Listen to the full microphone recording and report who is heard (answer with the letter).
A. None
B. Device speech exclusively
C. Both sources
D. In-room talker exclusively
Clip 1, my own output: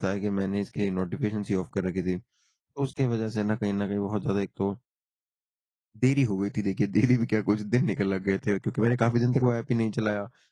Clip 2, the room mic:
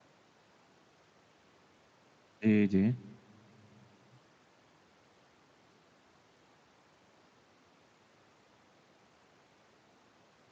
D